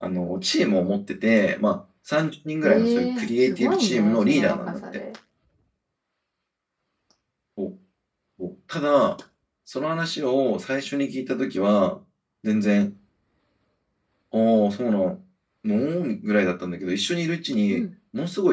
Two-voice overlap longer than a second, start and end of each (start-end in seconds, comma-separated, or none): 2.6-4.8